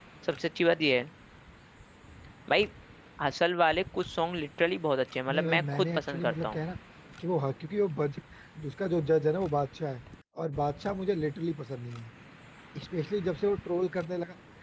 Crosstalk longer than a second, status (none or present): present